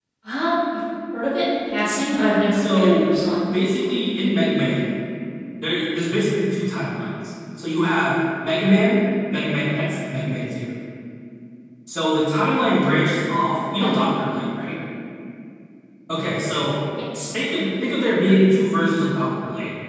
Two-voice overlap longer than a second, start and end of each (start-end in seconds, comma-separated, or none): none